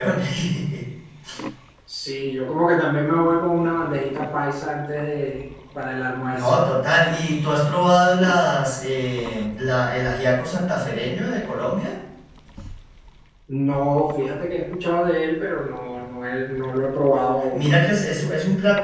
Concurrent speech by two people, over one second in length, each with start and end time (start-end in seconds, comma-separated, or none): none